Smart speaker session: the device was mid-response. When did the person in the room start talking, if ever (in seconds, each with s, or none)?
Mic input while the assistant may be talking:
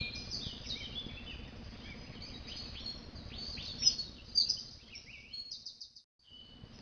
none